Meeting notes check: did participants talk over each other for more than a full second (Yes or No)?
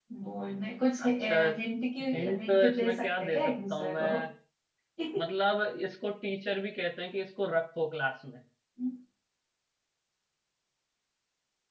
Yes